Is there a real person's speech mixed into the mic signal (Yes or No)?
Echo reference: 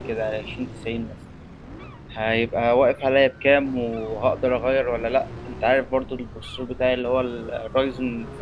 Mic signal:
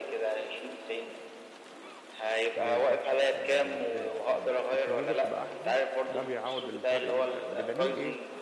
Yes